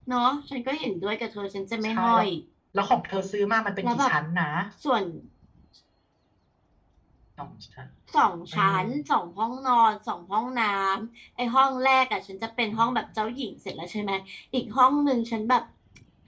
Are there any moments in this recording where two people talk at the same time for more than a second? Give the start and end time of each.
none

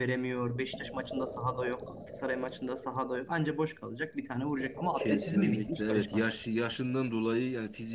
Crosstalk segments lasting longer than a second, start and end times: 5.0-6.3

